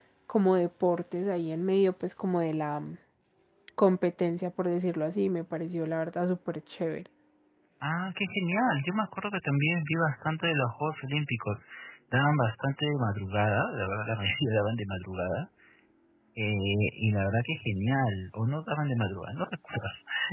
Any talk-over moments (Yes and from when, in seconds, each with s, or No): No